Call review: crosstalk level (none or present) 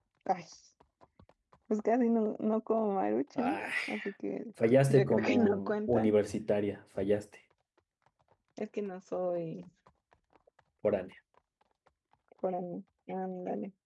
present